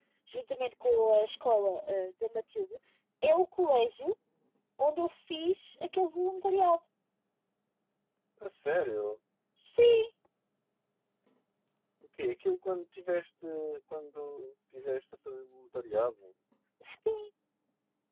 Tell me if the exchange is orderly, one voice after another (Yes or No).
Yes